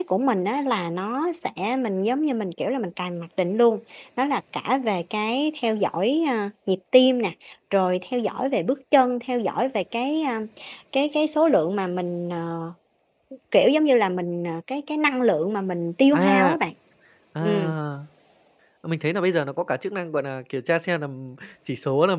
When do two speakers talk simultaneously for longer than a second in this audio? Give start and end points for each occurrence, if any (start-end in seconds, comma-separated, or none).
none